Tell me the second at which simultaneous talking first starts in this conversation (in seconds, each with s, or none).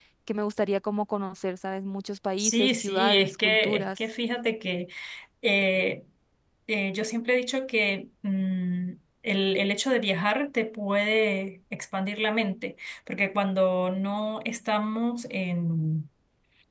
2.4 s